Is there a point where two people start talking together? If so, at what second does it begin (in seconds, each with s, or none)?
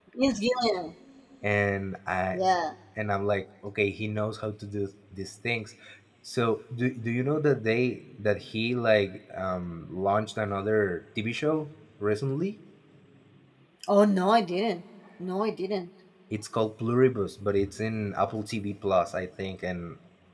none